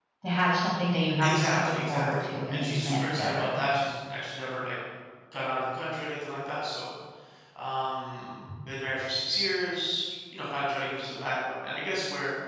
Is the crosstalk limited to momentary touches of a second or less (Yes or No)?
No